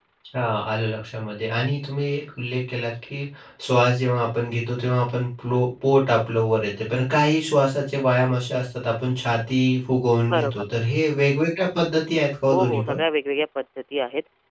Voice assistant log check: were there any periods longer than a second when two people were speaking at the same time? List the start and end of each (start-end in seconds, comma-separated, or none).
none